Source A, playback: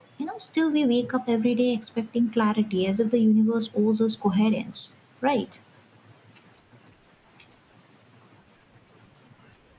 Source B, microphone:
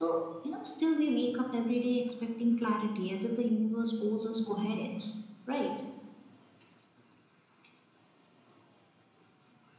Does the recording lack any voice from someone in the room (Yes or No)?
Yes